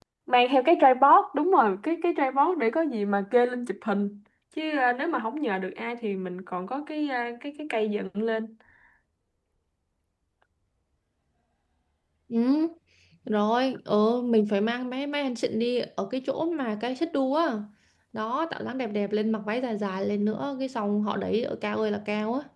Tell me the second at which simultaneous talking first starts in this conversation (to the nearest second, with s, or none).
none